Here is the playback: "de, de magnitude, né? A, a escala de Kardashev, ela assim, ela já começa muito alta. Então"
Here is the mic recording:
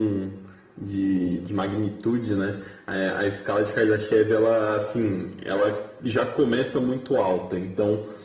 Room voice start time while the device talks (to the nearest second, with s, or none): none